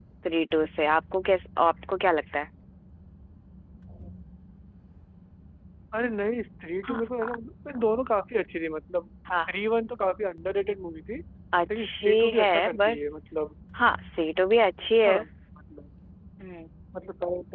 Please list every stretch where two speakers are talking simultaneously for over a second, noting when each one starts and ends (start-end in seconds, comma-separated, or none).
11.8-13.0